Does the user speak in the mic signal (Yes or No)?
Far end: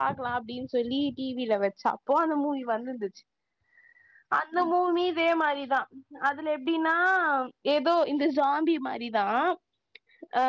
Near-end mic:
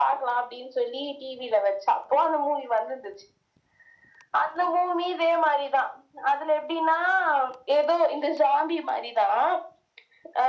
No